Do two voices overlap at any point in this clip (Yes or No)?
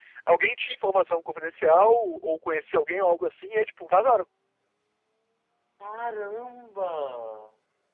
No